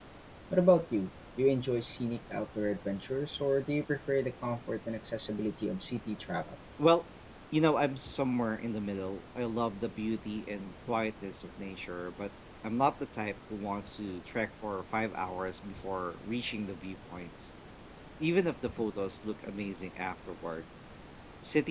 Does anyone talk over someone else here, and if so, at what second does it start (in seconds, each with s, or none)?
none